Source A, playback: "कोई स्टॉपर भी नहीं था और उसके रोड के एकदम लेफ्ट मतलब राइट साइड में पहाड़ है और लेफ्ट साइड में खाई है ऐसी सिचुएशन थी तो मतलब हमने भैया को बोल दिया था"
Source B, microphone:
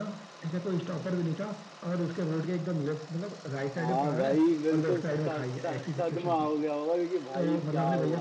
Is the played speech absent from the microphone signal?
No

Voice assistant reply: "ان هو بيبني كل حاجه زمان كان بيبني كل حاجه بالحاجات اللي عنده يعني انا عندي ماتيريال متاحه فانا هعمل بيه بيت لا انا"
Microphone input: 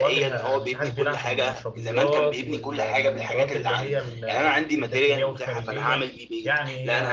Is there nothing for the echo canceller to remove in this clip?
No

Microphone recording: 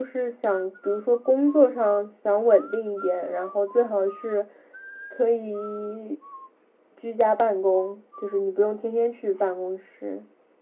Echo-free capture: Yes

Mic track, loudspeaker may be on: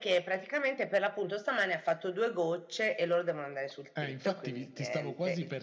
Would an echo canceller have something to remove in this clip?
Yes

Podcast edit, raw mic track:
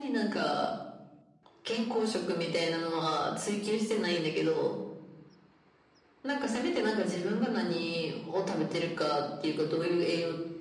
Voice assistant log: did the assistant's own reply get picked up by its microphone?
Yes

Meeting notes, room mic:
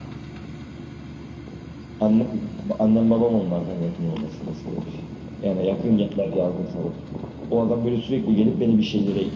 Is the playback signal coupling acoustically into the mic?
Yes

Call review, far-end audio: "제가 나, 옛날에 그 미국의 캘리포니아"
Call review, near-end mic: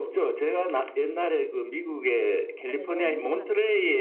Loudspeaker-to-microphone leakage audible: Yes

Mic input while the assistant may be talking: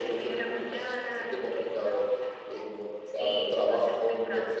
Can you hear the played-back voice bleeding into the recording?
Yes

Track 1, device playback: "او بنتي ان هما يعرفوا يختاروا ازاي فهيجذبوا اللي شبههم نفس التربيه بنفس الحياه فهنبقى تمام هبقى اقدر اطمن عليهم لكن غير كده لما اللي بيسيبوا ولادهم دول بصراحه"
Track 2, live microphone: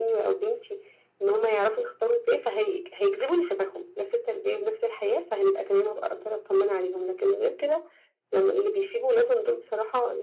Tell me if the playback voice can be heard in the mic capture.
Yes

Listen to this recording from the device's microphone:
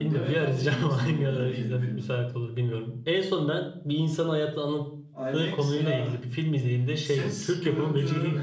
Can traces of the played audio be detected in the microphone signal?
Yes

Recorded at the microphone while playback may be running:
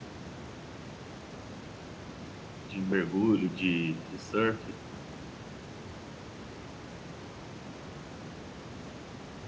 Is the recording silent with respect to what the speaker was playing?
Yes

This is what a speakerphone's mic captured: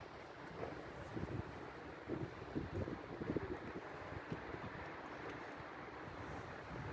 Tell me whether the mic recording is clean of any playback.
Yes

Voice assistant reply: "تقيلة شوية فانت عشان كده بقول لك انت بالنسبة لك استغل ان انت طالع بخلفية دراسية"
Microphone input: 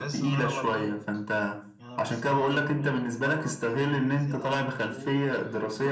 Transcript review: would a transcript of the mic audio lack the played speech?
No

